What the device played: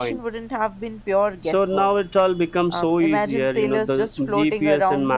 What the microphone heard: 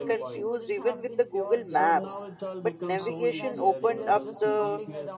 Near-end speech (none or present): present